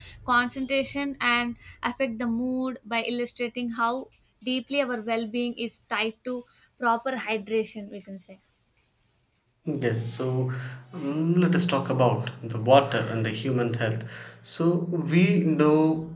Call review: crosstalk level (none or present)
none